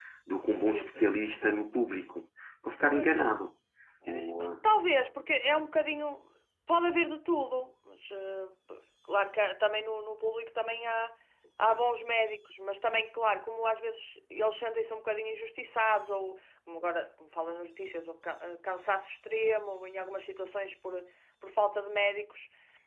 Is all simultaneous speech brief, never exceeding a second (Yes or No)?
Yes